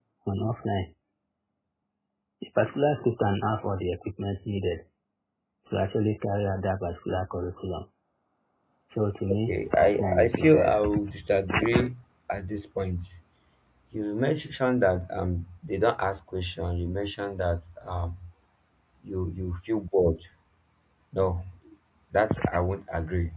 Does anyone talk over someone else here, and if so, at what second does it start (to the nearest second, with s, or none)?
9 s